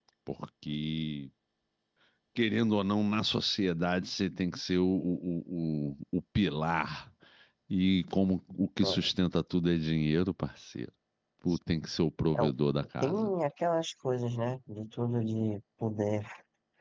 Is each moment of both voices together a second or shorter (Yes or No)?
Yes